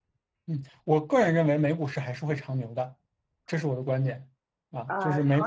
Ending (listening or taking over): taking over